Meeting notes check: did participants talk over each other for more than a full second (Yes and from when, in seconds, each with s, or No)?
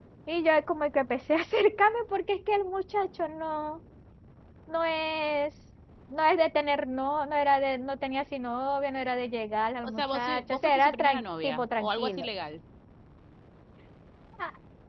Yes, from 9.8 s